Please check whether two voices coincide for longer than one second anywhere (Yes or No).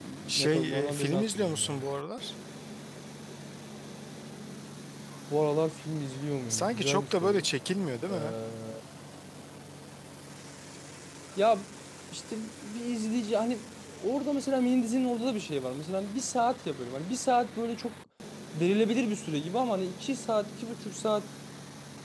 Yes